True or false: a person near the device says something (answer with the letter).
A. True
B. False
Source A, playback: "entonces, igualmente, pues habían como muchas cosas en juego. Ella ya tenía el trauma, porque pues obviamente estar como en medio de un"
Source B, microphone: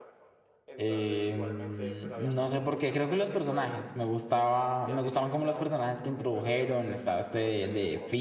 A